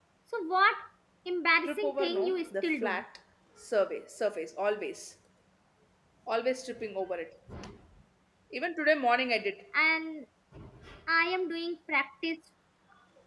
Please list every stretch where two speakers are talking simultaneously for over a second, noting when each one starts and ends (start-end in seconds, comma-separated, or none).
1.6-3.0